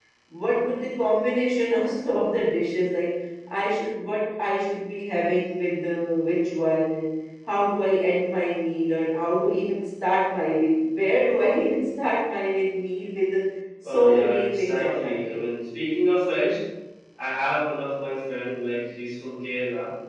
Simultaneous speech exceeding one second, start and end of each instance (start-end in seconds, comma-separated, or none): 13.8-15.4